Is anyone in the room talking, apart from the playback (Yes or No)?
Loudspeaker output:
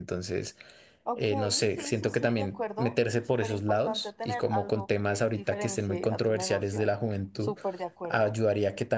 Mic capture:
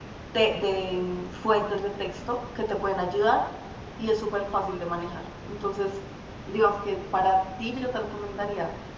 Yes